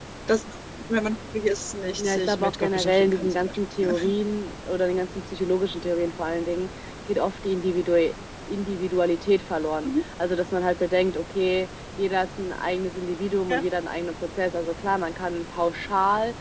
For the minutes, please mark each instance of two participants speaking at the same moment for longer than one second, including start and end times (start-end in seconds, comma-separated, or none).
2.0-3.9